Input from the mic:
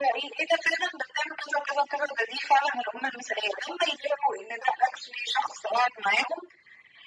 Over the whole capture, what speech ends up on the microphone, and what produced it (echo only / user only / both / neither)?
echo only